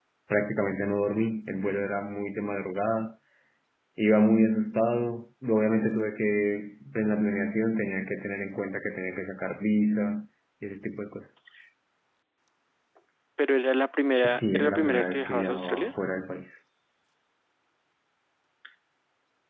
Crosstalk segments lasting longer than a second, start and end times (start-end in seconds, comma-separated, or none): 14.2-15.9